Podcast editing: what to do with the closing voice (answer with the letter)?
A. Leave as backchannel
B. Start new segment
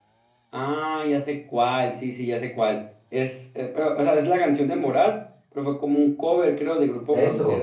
B